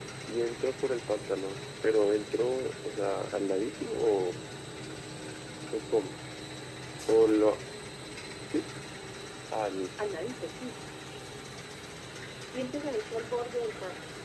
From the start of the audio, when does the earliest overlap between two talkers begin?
none

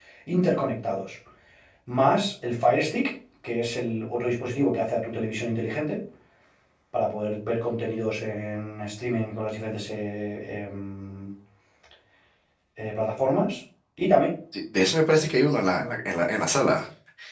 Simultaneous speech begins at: none

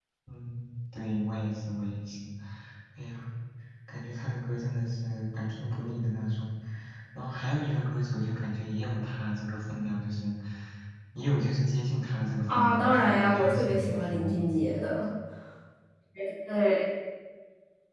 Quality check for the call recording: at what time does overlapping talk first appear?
12.5 s

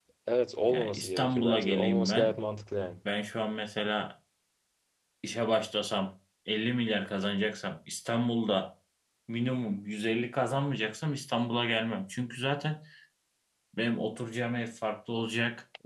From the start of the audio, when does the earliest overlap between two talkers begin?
0.7 s

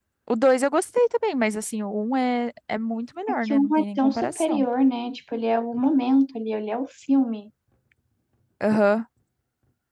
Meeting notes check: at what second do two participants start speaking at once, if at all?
3.3 s

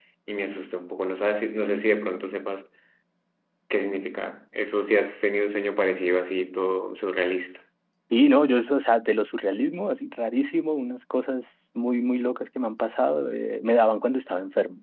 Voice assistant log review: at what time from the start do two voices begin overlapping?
none

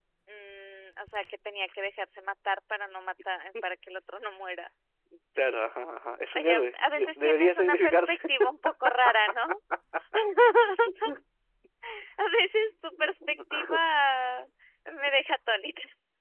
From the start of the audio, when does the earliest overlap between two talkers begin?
6.4 s

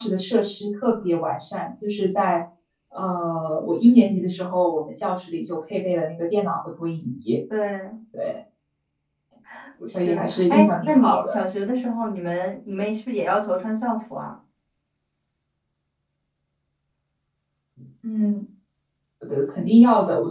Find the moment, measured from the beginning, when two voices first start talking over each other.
10.0 s

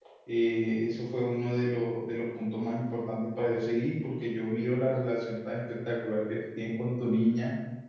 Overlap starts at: none

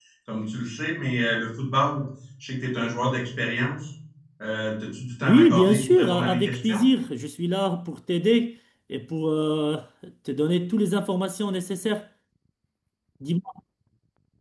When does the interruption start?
5.2 s

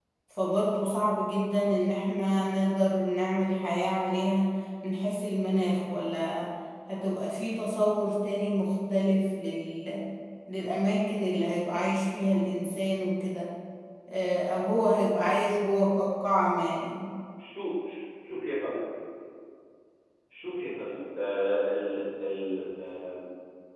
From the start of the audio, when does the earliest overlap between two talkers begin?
none

